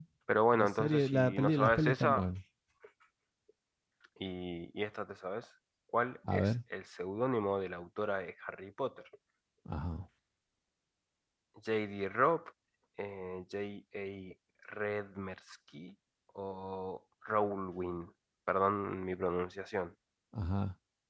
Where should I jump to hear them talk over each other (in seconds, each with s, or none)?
0.5 s